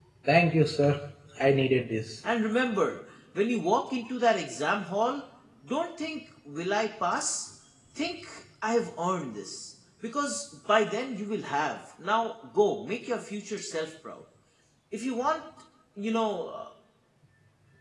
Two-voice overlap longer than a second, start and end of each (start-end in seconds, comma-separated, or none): none